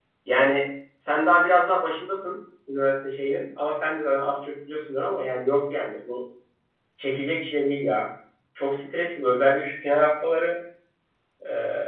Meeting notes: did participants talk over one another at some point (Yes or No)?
No